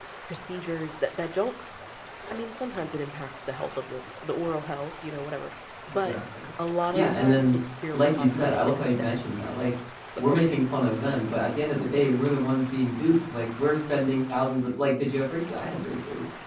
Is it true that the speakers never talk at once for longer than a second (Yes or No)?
No